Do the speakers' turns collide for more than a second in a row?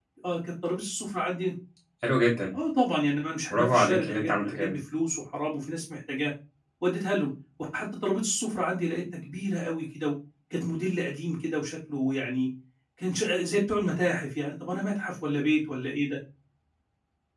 Yes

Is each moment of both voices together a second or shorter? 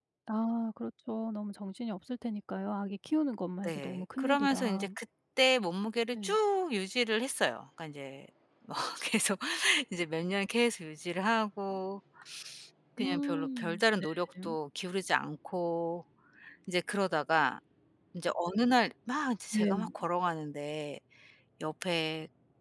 No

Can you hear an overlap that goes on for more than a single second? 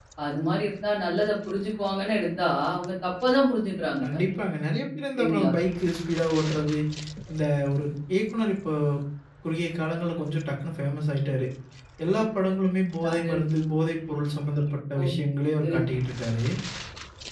No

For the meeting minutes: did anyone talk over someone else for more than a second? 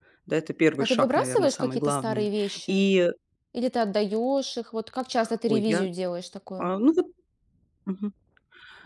Yes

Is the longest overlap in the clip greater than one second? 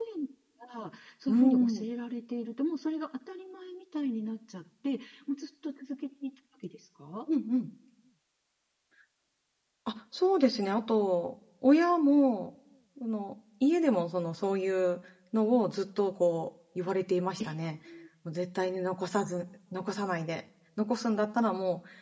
No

